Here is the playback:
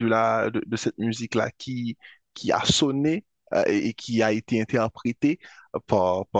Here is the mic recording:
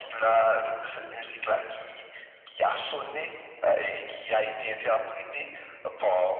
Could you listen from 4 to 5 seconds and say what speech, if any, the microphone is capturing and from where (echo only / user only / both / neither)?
echo only